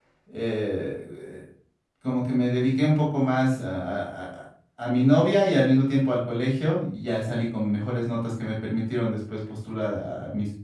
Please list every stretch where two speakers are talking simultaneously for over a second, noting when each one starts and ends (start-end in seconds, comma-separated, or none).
none